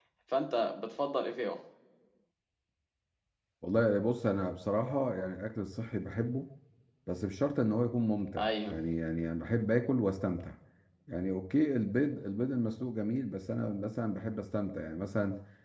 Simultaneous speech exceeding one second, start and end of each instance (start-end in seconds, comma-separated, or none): none